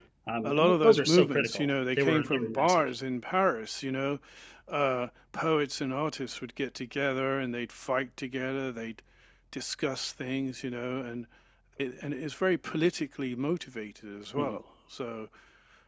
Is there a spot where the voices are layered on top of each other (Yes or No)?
Yes